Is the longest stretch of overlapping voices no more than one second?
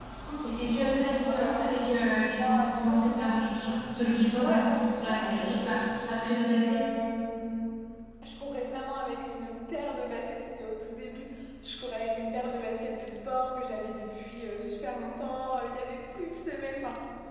No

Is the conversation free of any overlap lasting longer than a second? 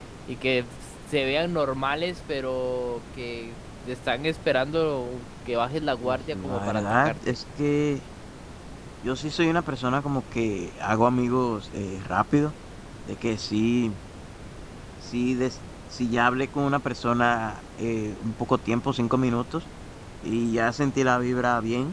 No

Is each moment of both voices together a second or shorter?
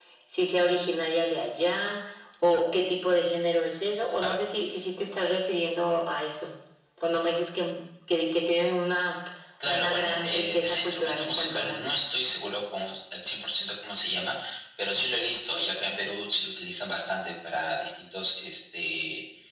No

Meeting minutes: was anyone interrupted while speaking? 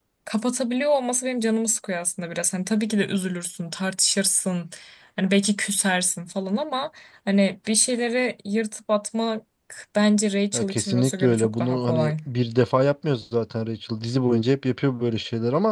Yes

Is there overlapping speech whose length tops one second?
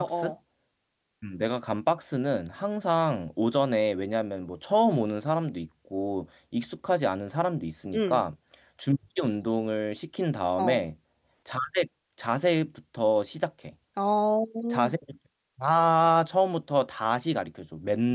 No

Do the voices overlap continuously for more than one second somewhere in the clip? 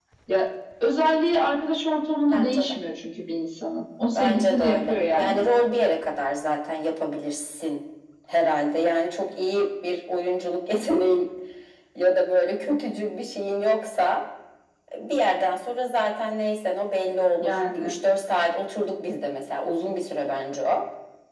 Yes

